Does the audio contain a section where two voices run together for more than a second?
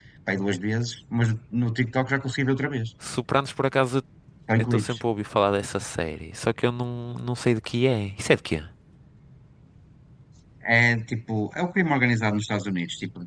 No

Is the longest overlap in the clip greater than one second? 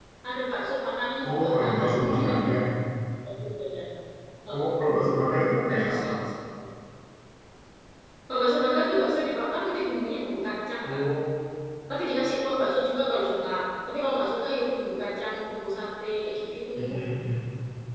Yes, from 1.3 s

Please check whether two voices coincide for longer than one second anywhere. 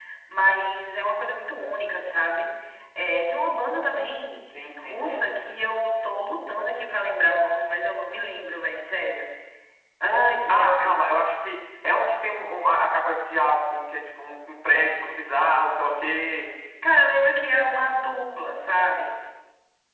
No

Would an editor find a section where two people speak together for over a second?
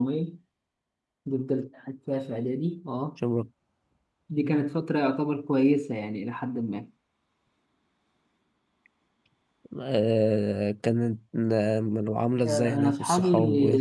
Yes, from 12.4 s

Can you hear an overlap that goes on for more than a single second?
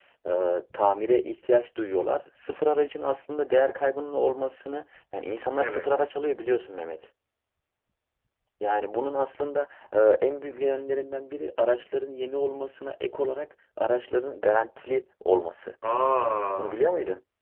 No

